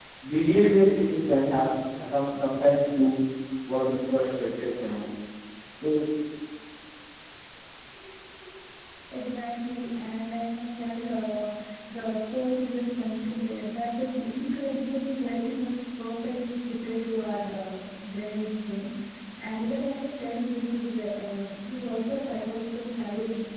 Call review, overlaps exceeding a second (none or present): none